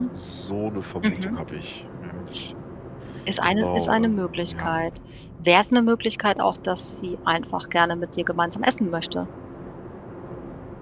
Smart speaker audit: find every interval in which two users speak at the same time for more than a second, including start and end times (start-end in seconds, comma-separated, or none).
3.4-4.7